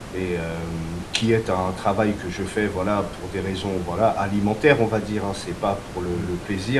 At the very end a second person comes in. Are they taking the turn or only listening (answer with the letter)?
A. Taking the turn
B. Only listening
B